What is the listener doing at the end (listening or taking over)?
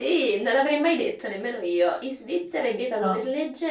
listening